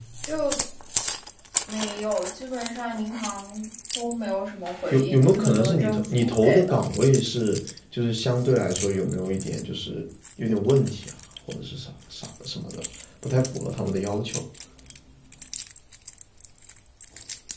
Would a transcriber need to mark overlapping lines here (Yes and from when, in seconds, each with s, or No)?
Yes, from 4.9 s